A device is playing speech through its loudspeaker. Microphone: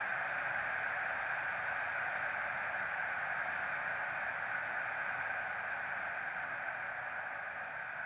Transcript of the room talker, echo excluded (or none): none